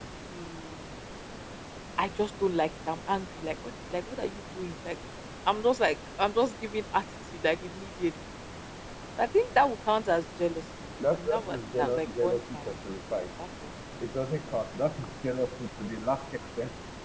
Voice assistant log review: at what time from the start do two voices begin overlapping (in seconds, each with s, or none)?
11.0 s